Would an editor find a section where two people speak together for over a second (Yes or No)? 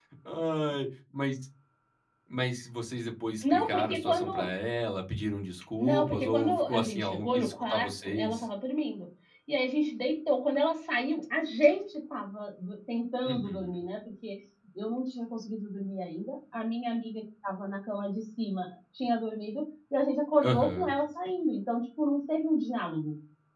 Yes